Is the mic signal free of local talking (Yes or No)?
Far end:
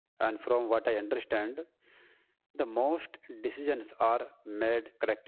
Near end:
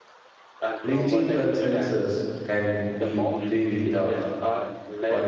No